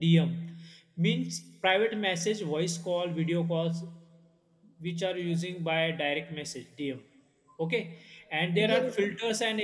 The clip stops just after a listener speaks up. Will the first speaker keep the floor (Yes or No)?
Yes